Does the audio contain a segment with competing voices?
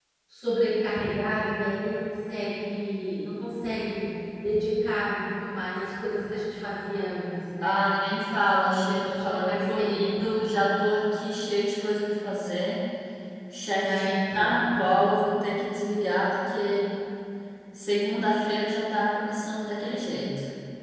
Yes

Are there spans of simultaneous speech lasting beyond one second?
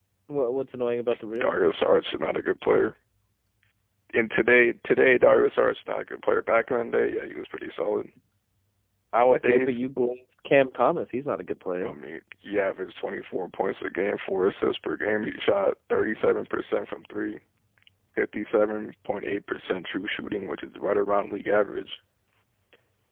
No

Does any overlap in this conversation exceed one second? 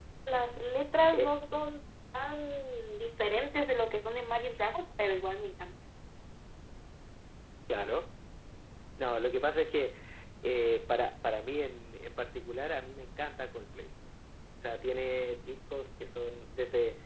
No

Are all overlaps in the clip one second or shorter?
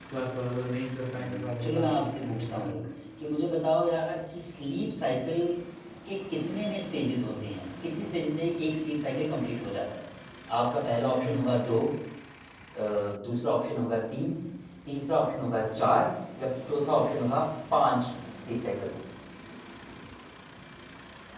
No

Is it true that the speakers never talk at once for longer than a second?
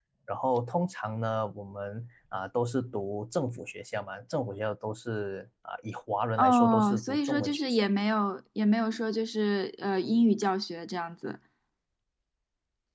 No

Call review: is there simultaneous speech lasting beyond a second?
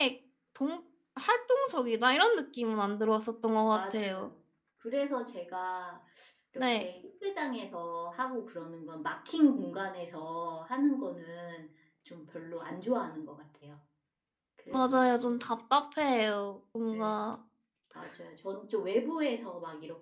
No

